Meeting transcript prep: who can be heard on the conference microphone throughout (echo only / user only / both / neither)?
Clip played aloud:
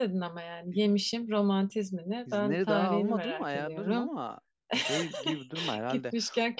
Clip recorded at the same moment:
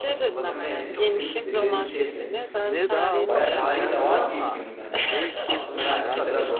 both